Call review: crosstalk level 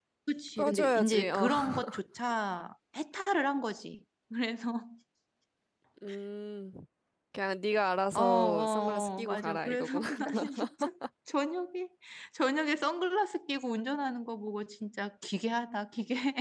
present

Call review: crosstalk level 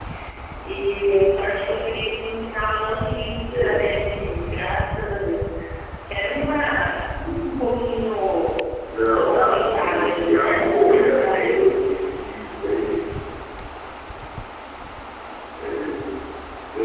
present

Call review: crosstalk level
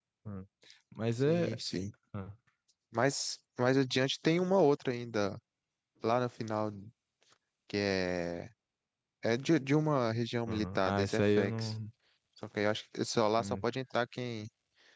present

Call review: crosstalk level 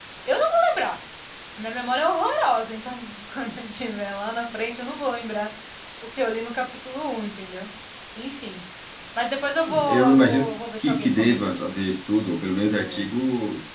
present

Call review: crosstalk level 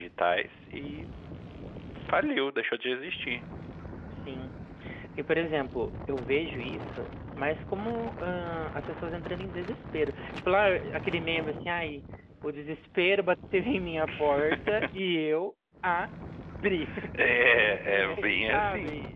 present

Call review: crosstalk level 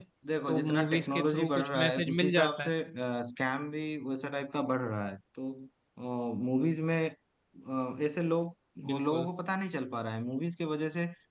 present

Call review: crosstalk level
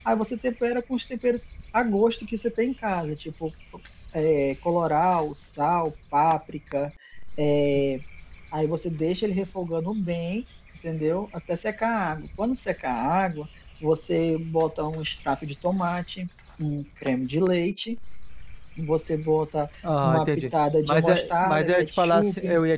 present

